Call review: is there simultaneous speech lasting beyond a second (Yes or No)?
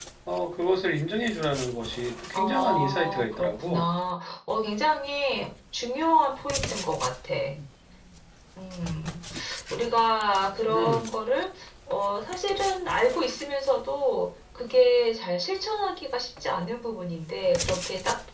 Yes